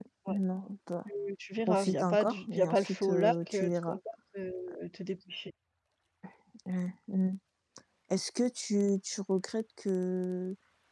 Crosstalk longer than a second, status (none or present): present